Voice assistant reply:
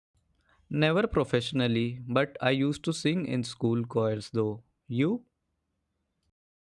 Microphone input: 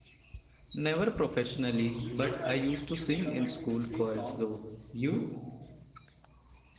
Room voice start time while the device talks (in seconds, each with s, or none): 2.0 s